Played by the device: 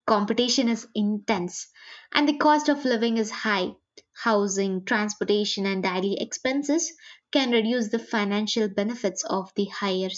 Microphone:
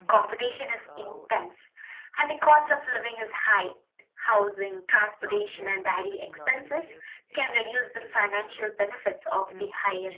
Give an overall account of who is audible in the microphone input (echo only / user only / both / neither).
both